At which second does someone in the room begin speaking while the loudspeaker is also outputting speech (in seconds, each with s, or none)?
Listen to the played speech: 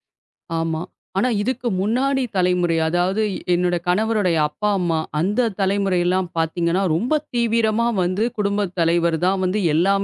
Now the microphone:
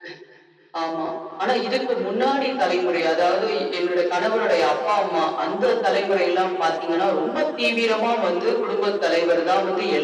none